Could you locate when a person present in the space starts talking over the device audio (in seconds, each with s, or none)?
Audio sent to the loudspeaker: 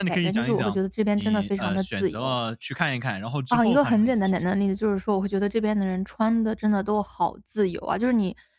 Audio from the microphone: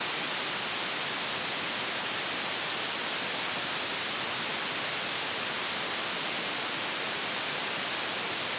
none